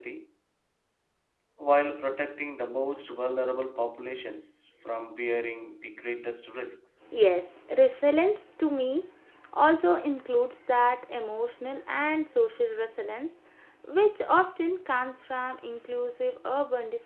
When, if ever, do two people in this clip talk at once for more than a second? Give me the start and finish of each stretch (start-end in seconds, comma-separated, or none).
none